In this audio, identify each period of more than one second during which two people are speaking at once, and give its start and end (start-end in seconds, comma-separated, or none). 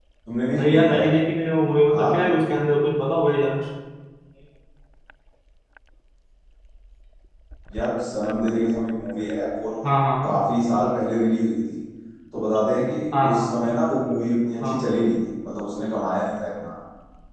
none